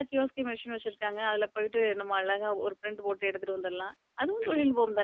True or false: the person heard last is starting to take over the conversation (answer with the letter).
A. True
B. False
A